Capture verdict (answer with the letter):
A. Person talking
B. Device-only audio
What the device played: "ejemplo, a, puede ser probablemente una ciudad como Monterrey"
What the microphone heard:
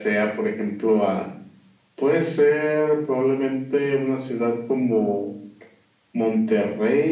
B